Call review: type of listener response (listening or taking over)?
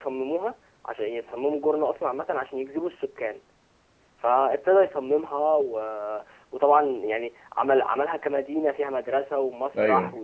listening